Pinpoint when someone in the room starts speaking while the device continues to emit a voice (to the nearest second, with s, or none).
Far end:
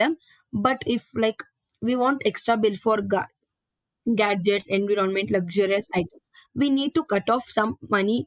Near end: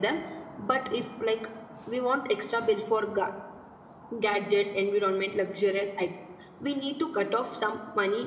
none